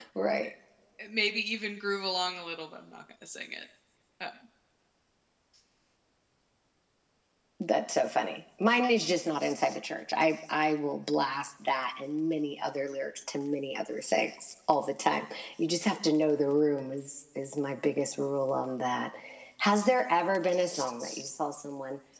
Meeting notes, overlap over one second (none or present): none